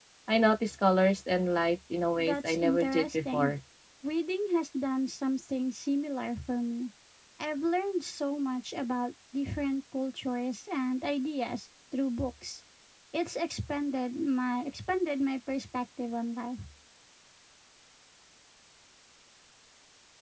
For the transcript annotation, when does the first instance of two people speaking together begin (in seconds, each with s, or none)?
2.1 s